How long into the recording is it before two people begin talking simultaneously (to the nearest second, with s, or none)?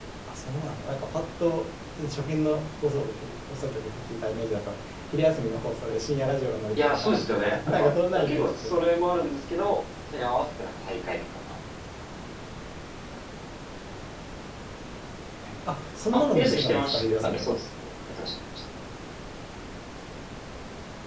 7 s